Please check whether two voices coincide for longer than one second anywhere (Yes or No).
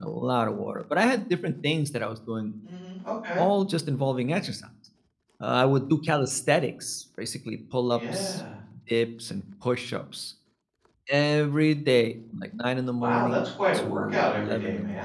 Yes